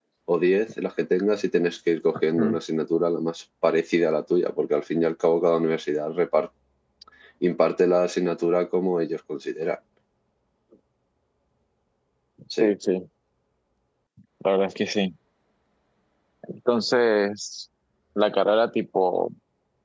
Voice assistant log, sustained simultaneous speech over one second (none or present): none